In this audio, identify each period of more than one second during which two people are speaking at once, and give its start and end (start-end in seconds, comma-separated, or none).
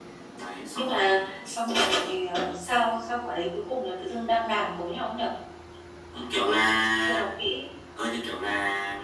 none